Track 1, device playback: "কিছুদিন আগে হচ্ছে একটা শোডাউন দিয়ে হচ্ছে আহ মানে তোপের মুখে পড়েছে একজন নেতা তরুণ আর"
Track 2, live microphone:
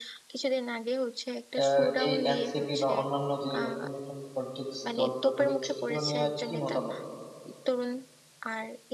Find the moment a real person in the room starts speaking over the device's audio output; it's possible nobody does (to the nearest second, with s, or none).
2 s